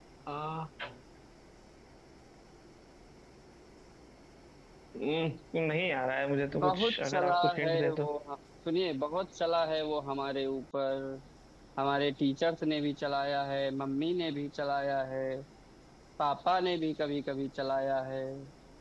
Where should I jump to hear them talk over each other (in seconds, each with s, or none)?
6.5 s